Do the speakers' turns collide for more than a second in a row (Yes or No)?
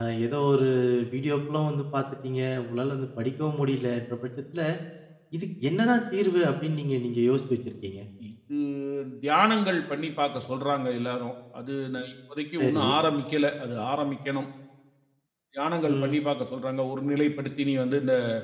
No